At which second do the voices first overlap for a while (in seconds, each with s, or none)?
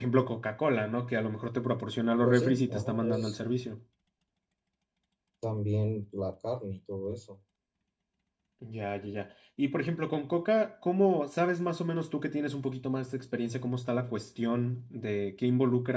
2.2 s